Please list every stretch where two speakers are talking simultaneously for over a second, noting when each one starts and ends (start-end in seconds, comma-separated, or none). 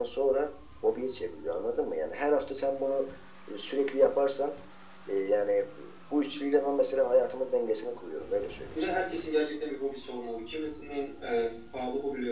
none